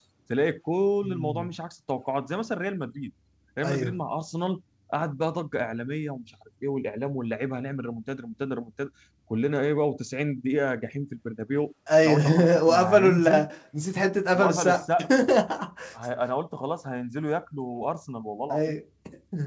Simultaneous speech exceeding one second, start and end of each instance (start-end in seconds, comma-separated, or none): 12.0-13.5